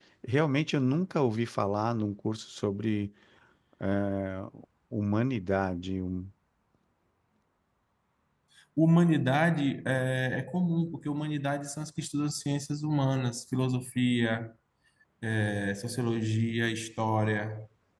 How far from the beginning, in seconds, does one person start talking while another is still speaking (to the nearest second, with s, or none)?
none